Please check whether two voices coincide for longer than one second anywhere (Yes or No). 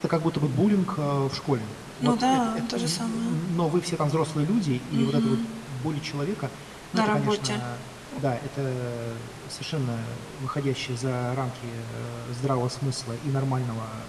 Yes